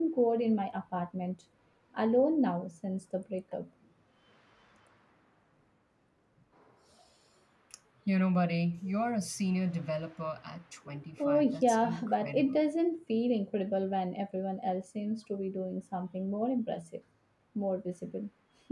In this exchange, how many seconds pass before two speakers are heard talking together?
11.2 s

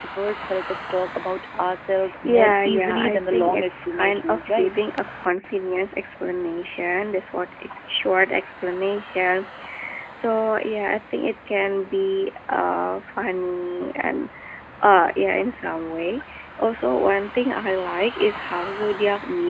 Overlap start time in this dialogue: 2.0 s

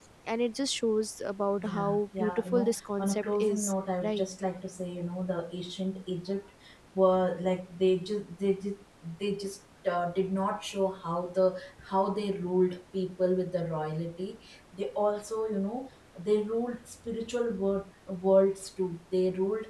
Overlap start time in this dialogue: 1.6 s

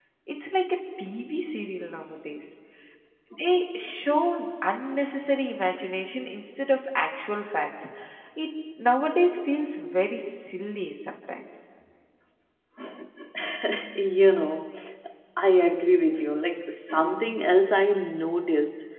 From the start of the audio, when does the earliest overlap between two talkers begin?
none

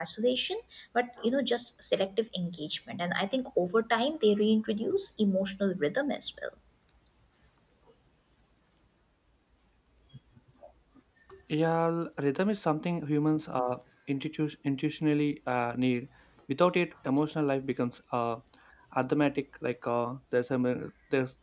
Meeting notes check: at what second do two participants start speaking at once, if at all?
none

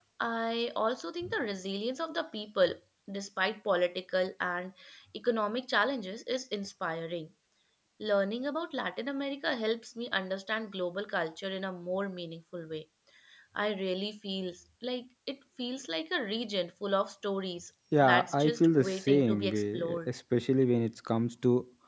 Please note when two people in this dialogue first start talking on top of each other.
17.9 s

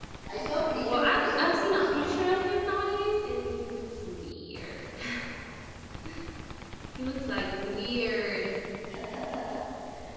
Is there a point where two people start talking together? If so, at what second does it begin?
0.8 s

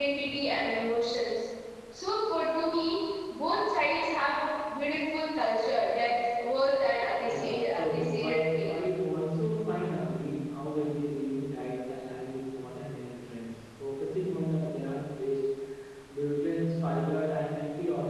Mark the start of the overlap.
7.2 s

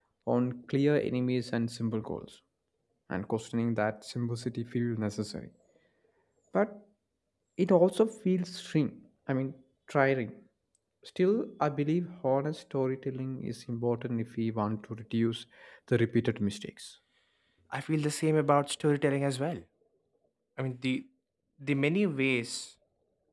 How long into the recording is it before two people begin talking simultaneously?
none

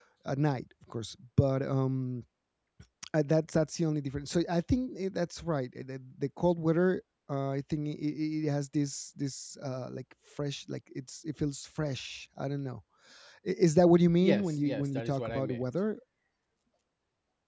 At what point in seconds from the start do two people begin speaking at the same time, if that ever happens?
14.2 s

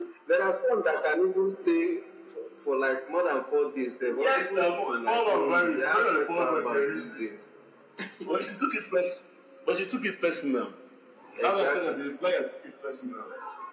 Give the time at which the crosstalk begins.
4.2 s

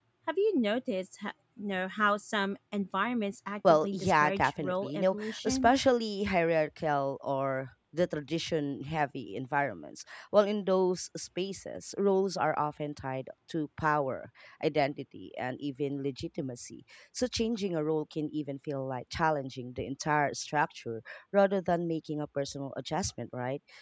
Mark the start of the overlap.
3.6 s

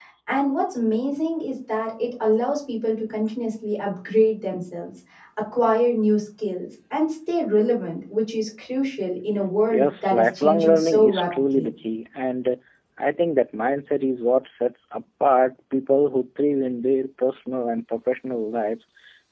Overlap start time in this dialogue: 9.7 s

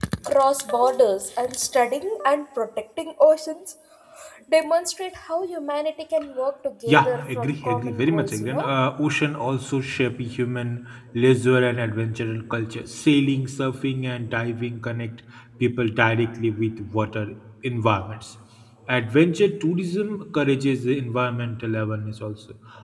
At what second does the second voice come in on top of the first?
6.9 s

